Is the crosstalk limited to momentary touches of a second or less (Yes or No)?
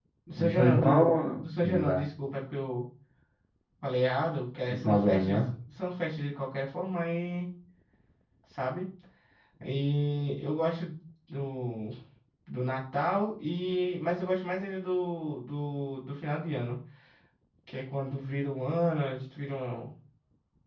No